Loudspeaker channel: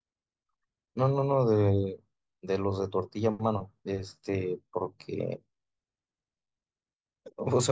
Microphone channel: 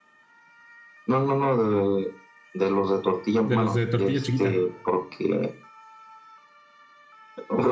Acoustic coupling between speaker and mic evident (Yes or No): Yes